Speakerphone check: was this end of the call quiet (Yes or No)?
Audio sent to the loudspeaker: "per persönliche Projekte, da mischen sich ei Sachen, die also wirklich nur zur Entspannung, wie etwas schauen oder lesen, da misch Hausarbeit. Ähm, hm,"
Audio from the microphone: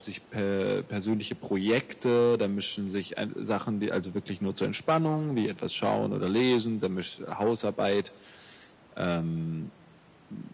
Yes